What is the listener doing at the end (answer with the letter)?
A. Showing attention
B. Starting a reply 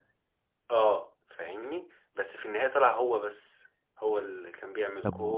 B